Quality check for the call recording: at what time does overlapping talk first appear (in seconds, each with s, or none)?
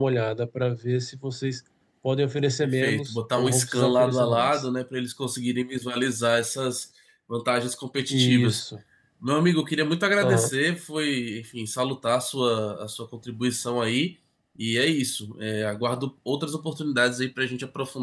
2.6 s